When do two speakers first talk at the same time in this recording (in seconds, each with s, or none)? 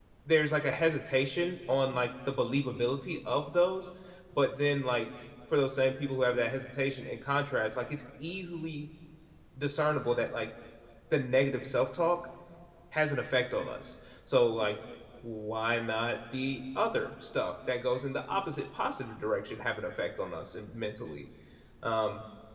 none